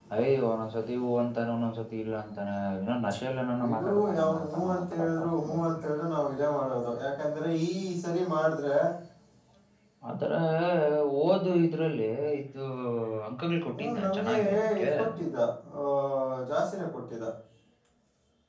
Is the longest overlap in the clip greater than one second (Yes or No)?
Yes